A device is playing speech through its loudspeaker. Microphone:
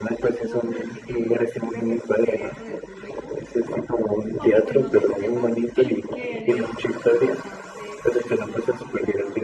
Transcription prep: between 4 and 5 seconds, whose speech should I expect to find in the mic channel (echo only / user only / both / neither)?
both